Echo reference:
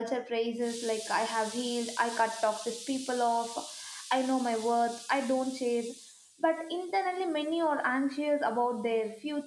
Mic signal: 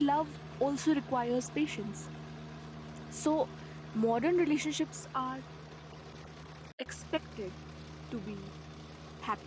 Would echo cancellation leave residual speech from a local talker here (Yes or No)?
Yes